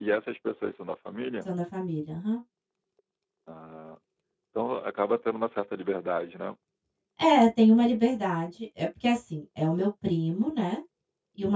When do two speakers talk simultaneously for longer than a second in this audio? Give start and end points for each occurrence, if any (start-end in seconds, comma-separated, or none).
none